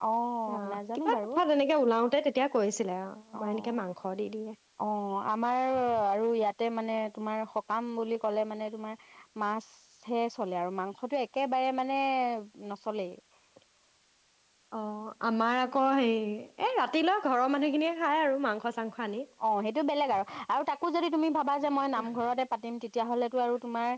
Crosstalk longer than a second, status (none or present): none